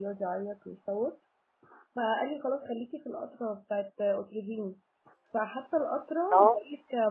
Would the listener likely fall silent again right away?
Yes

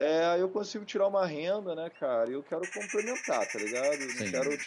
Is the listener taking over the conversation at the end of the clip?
No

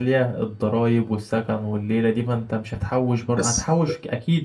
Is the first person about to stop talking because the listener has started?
No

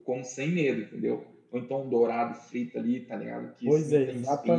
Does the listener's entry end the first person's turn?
Yes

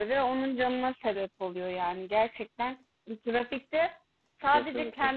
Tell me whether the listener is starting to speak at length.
No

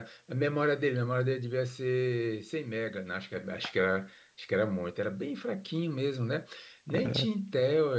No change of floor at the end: Yes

